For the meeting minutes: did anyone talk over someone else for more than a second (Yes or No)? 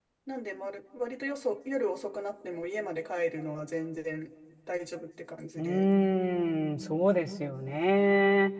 No